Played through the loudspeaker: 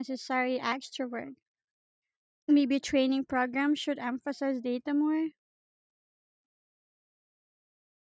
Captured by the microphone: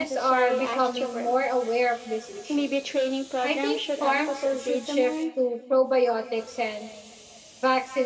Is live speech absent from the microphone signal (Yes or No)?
No